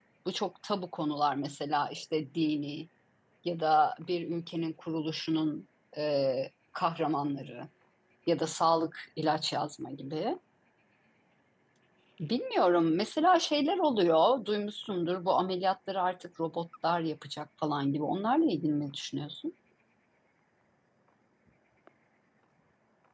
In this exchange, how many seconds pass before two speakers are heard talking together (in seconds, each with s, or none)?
none